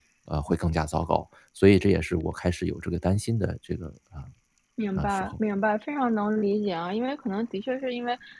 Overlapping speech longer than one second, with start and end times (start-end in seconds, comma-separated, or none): none